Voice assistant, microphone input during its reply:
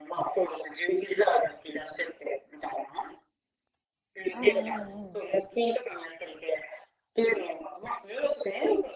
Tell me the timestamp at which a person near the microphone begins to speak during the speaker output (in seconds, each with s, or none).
4.3 s